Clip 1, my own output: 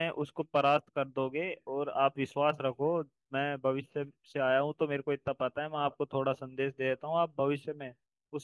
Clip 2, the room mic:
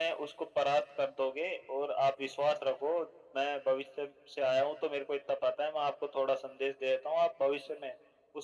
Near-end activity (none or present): none